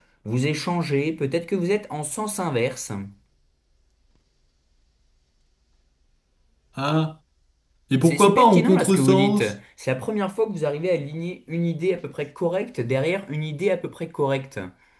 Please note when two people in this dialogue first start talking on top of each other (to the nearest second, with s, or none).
8 s